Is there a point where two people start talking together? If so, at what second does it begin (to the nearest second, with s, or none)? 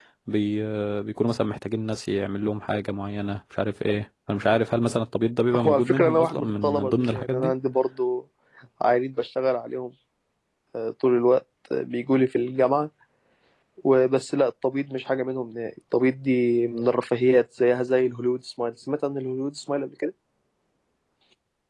6 s